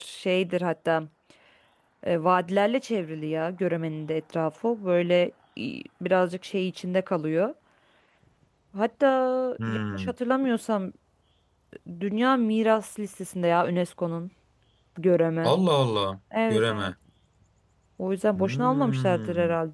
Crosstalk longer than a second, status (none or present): present